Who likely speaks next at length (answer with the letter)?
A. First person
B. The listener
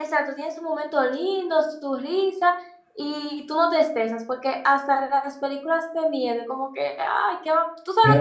B